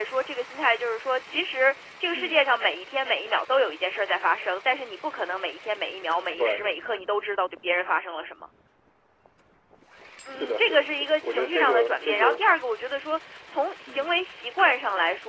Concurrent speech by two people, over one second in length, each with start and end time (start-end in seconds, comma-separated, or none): 10.4-12.3